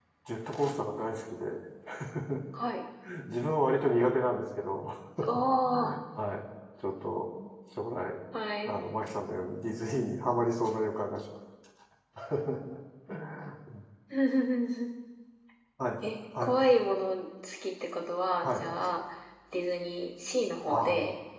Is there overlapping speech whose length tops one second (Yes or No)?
No